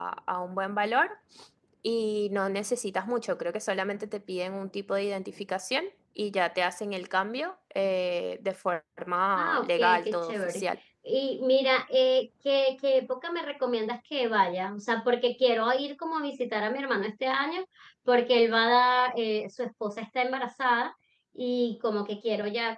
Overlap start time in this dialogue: 9.4 s

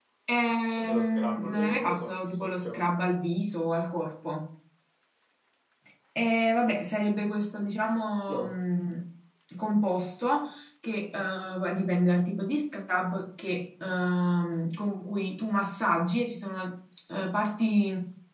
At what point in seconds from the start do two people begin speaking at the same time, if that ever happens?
0.8 s

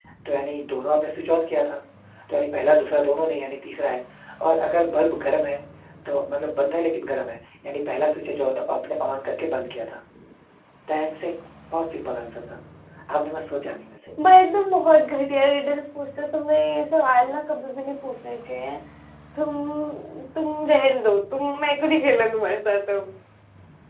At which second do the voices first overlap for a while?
none

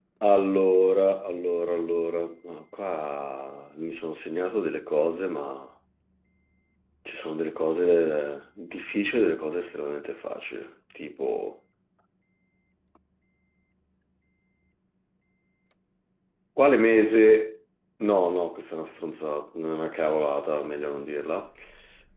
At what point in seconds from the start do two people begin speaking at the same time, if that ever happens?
none

